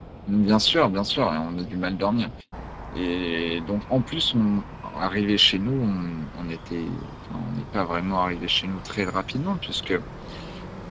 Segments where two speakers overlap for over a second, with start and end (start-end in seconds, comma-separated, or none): none